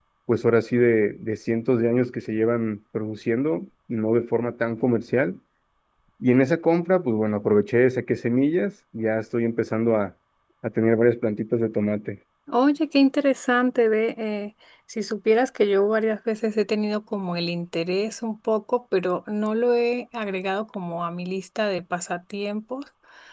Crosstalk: none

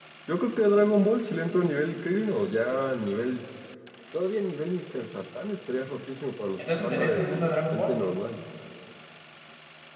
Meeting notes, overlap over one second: present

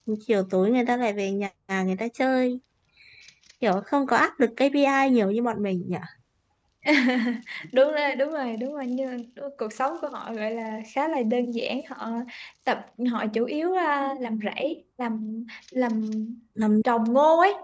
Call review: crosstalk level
none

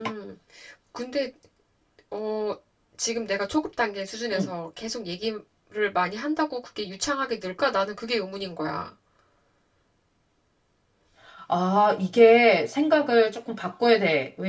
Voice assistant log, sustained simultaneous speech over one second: none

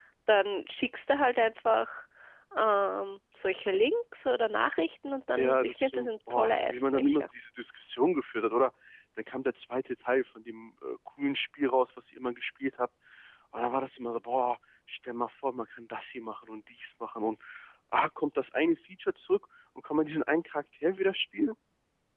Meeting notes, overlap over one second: present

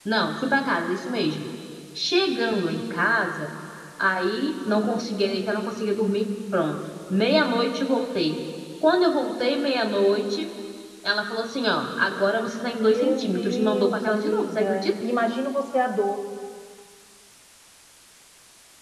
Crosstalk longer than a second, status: present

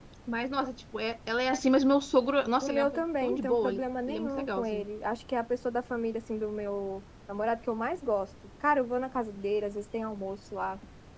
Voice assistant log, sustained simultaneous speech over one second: present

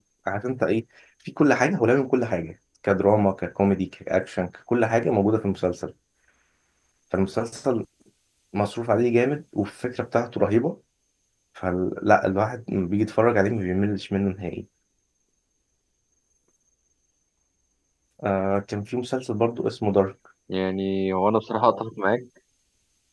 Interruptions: none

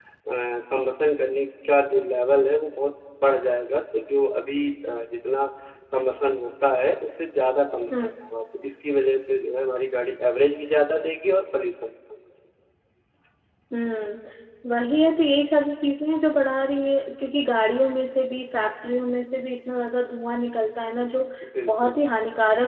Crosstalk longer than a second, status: none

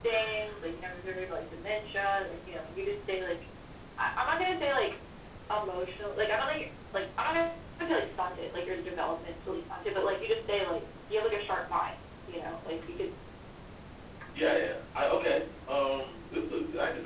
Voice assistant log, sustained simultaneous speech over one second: none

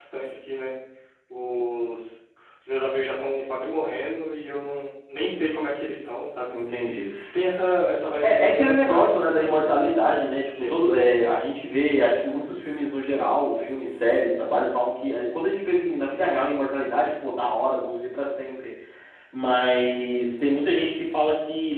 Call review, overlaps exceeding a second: present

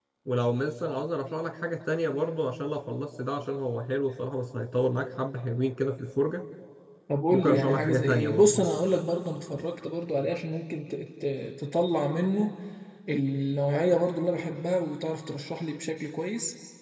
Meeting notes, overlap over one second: present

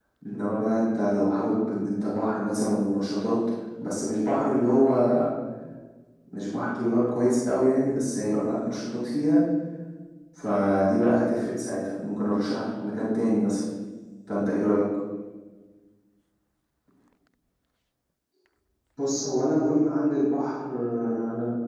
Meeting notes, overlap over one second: none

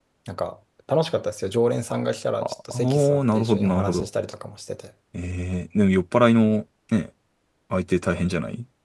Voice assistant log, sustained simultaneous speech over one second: present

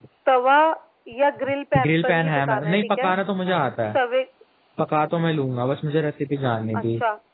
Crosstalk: present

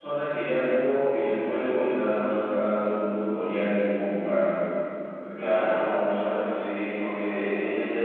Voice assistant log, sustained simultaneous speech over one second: none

